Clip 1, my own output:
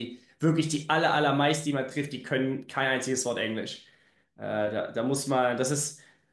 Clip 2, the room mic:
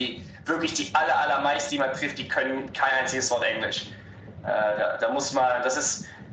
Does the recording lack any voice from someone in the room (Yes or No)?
Yes